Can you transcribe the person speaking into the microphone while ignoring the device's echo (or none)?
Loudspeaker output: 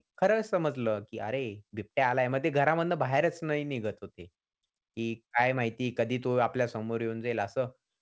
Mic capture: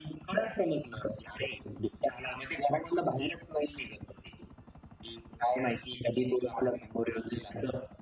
none